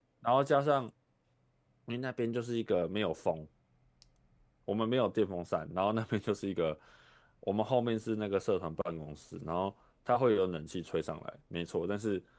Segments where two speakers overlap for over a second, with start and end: none

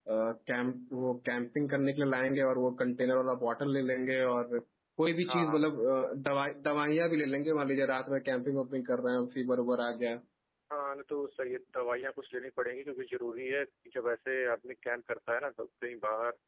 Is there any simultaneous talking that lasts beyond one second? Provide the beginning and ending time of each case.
none

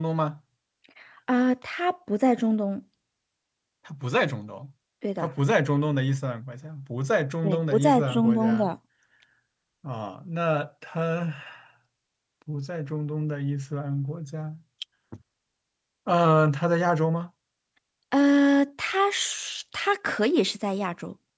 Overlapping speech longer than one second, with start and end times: 7.4-8.7

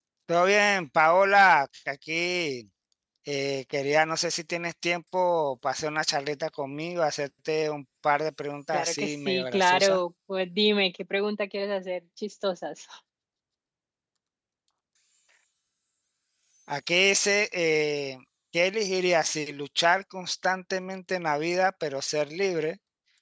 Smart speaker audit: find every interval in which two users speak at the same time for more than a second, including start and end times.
8.7-10.0

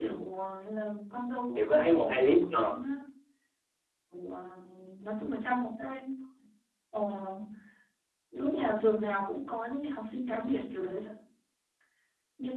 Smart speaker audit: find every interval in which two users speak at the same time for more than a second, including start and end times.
1.6-2.8

